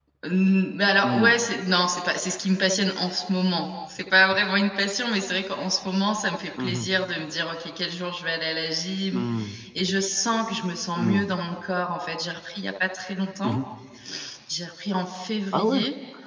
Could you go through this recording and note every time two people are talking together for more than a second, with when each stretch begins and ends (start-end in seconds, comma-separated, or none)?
none